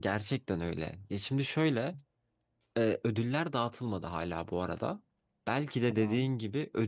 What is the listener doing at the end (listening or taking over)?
listening